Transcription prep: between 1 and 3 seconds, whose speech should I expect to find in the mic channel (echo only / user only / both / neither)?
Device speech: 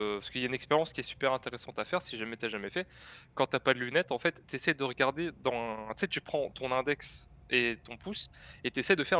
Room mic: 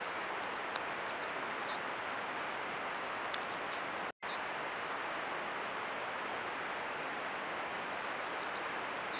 neither